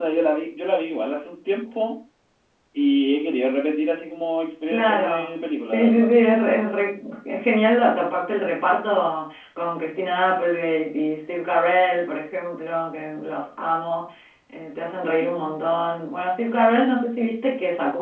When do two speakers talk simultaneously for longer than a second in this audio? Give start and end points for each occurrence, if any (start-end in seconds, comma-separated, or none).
4.7-6.1